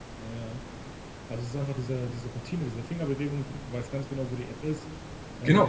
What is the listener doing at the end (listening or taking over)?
taking over